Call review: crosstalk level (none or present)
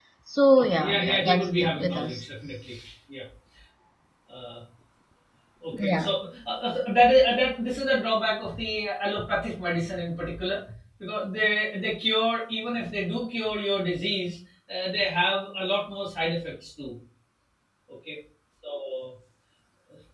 present